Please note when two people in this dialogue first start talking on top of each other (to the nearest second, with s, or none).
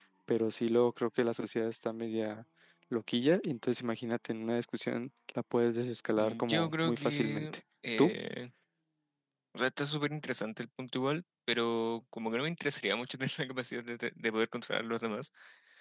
6 s